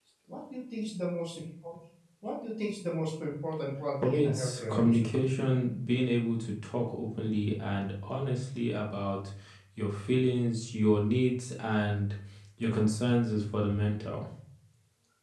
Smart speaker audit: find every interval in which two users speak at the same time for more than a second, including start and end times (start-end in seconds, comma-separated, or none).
4.0-5.3